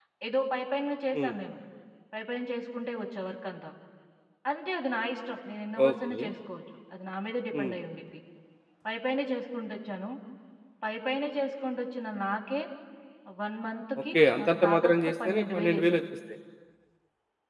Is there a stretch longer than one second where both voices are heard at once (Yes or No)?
Yes